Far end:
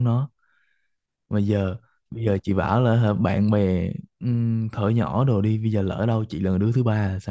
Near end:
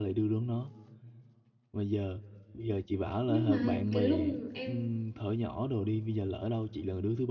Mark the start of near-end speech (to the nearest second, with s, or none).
3 s